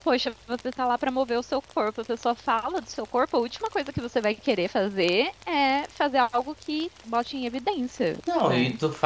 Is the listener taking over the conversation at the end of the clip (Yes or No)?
Yes